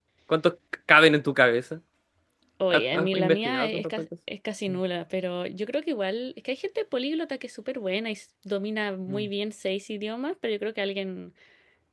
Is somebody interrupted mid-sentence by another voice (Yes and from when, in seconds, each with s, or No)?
Yes, from 2.7 s